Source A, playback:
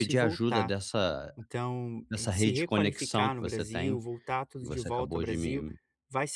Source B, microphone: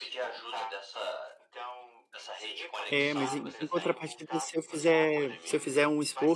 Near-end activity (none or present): present